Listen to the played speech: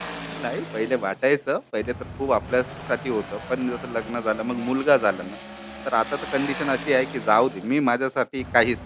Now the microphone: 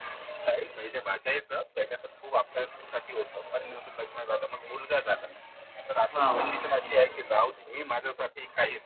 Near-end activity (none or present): present